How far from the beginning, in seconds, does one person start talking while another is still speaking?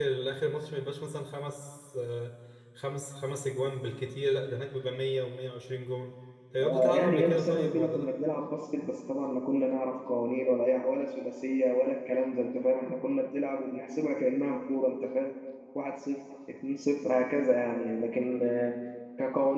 7 s

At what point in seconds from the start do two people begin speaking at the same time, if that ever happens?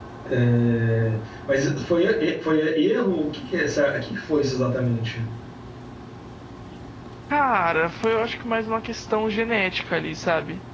none

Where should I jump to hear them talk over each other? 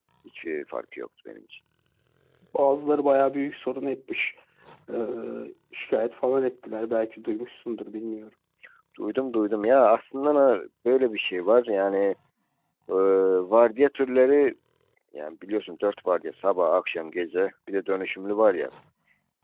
none

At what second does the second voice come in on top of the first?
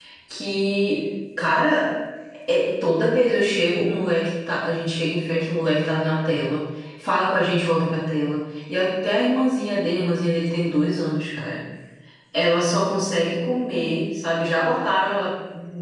none

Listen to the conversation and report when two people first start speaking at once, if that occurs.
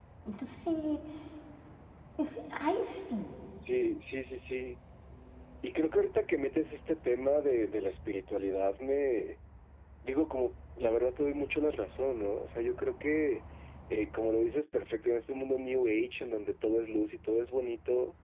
none

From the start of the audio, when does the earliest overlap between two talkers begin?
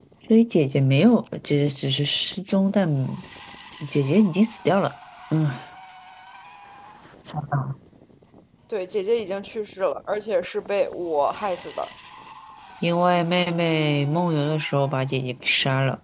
none

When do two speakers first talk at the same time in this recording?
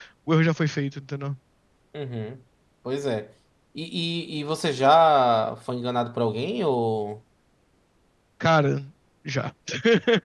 none

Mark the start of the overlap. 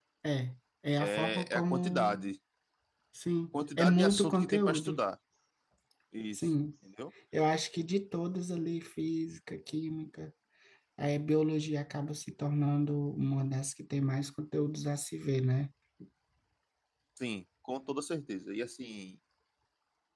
1 s

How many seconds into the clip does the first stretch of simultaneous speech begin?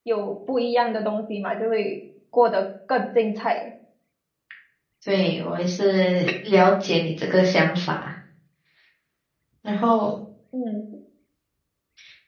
none

